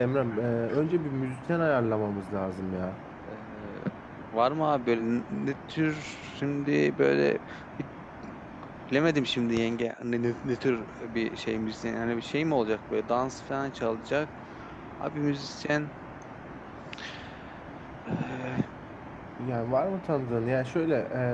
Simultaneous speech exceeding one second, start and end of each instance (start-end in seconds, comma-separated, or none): none